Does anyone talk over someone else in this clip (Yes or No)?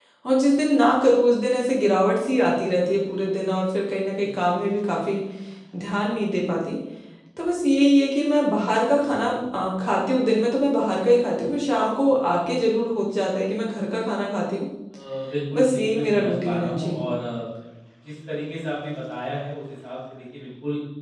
Yes